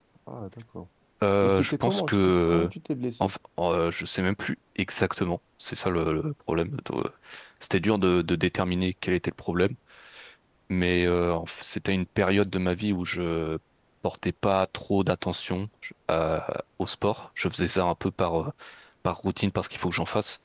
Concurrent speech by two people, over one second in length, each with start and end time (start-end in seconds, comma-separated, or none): 1.4-2.7